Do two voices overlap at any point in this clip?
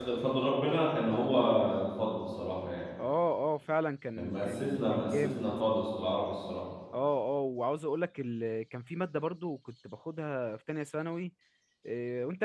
Yes, from 4.2 s

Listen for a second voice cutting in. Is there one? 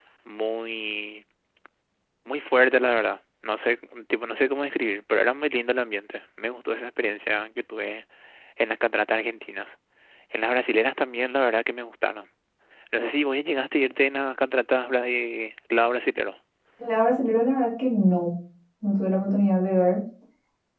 No

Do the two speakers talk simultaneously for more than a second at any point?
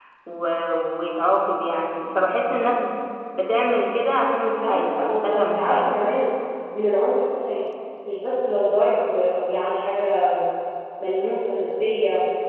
Yes, from 4.4 s

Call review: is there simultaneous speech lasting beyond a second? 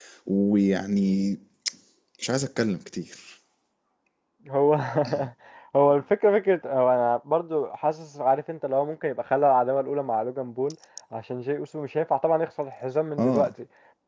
No

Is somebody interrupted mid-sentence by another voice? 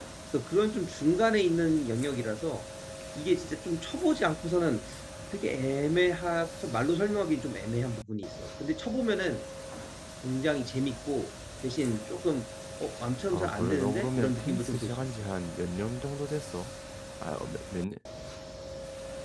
Yes, from 13.3 s

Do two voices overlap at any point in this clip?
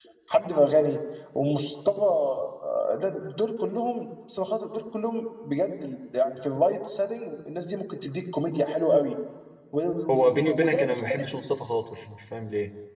Yes, from 10.1 s

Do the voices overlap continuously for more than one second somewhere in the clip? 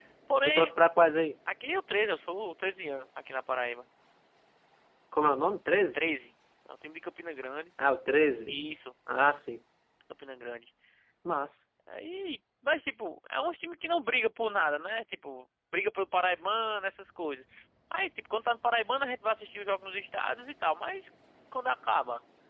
No

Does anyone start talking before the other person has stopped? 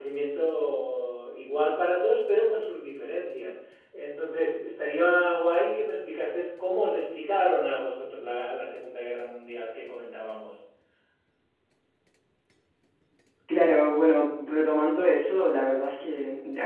No

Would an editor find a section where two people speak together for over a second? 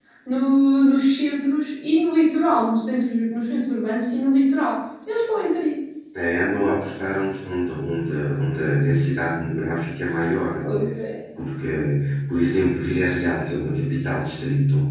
No

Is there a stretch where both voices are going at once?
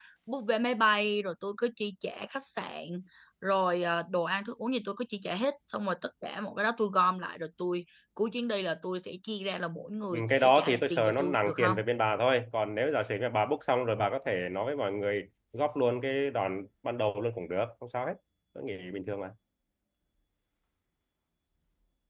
Yes, from 10.1 s

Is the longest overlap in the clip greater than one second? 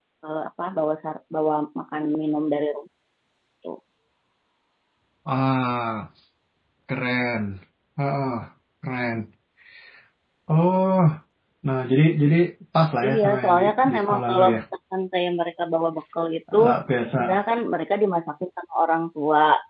Yes, from 13.0 s

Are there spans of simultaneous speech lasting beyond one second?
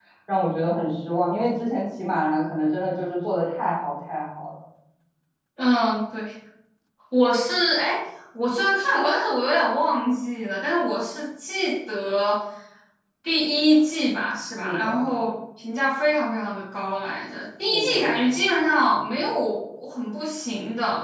No

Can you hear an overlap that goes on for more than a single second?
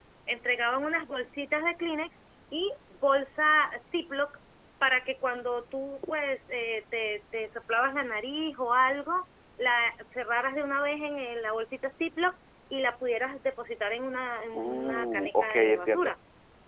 Yes, from 14.5 s

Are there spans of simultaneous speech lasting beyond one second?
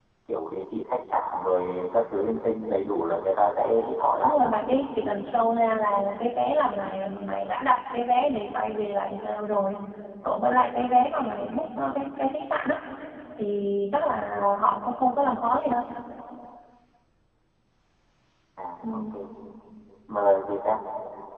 No

